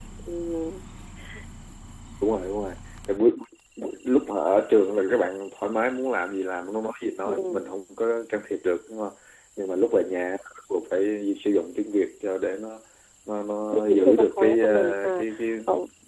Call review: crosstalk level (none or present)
present